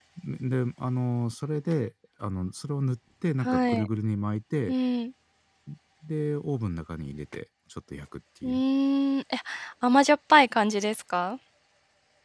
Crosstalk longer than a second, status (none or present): none